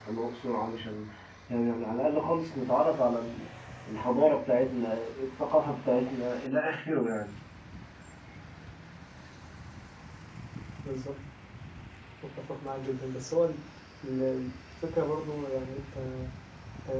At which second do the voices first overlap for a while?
none

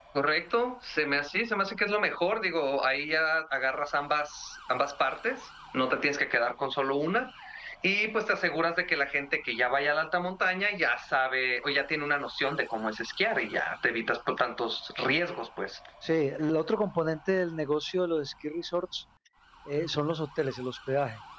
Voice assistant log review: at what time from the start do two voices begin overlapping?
none

